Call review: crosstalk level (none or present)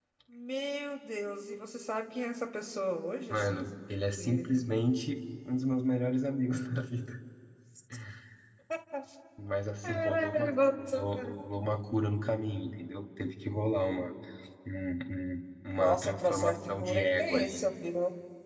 present